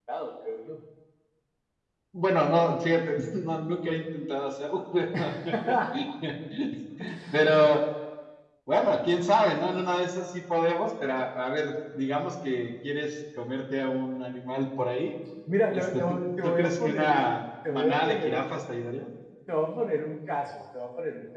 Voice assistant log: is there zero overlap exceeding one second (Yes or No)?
No